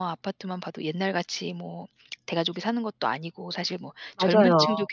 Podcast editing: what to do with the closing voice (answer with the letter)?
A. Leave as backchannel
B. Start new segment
A